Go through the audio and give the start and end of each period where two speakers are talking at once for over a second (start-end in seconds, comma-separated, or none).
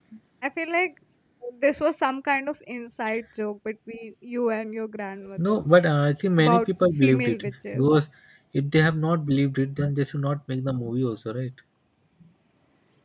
6.4-7.9